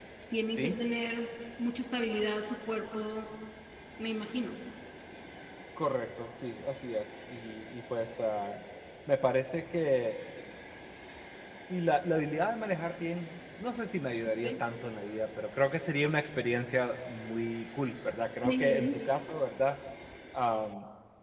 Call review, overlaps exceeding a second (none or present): none